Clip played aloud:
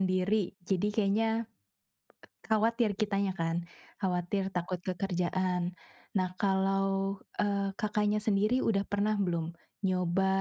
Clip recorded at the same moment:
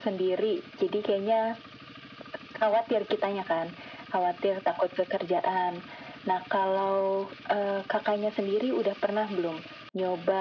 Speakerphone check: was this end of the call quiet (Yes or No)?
Yes